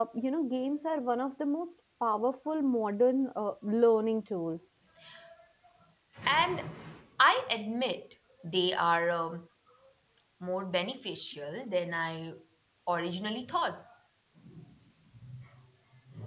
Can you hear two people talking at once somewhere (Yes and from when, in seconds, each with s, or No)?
No